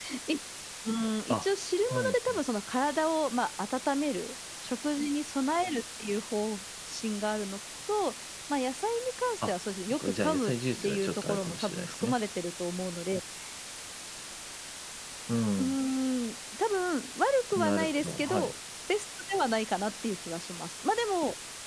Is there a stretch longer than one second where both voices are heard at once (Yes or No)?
Yes